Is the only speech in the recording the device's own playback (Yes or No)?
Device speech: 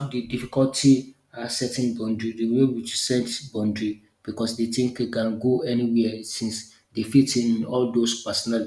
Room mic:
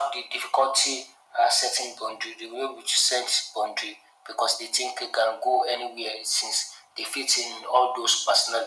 Yes